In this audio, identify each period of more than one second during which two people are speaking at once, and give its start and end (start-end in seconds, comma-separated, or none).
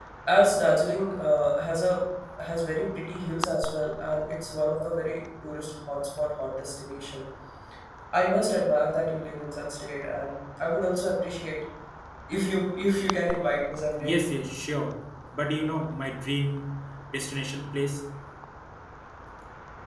none